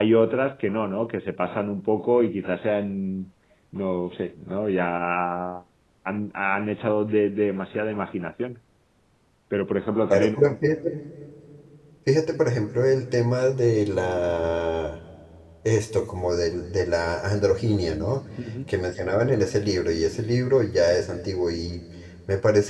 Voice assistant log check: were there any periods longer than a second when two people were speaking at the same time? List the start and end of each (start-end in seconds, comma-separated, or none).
none